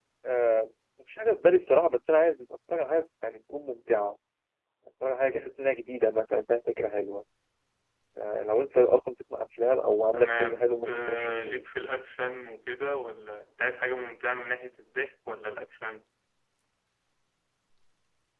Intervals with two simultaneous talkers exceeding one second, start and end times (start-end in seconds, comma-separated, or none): 10.1-11.6